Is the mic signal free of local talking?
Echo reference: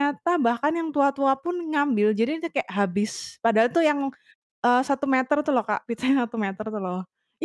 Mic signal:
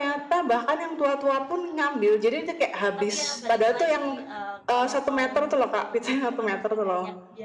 No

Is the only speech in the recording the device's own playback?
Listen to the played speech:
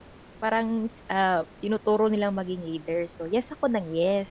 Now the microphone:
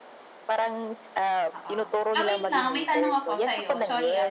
No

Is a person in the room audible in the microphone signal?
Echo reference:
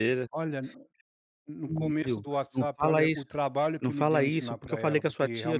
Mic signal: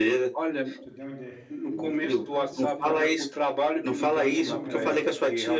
Yes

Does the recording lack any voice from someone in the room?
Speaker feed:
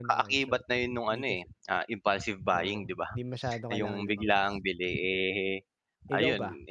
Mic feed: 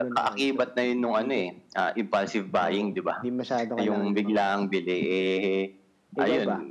Yes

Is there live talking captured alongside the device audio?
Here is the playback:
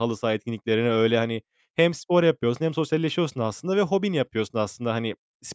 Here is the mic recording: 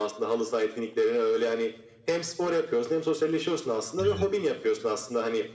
Yes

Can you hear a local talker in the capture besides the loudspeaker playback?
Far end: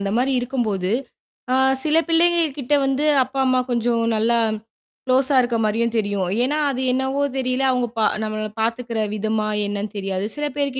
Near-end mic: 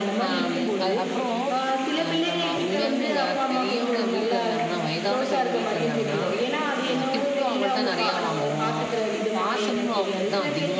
Yes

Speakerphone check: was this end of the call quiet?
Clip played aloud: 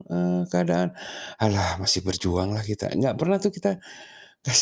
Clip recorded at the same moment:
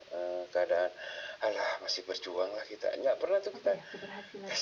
No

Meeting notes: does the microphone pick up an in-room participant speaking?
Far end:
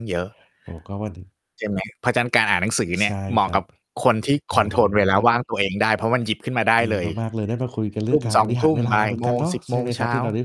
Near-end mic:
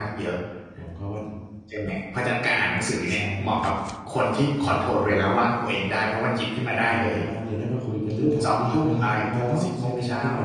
No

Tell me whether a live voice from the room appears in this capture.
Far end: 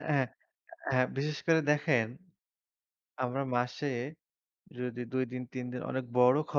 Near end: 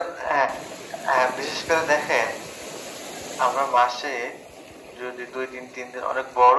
No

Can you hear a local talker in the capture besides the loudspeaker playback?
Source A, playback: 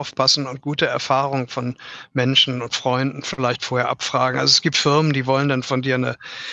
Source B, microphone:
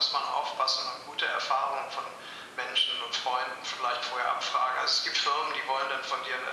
No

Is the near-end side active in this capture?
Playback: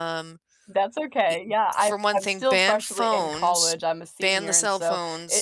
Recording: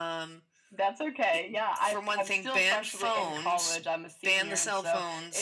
No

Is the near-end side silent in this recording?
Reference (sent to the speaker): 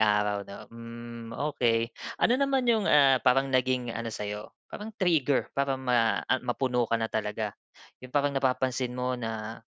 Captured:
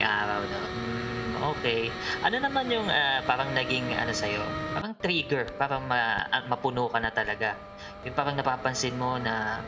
Yes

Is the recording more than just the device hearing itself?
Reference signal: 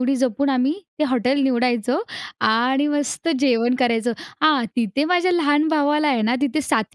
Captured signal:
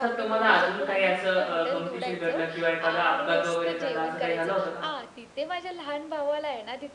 Yes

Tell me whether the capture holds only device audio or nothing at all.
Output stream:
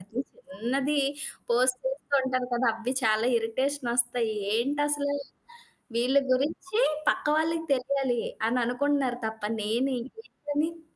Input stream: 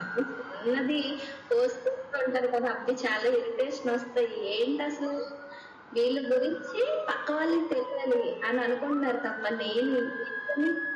Yes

